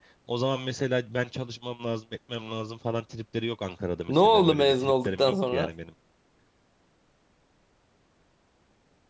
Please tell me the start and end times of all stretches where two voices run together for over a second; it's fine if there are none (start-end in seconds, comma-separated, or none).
4.1-5.7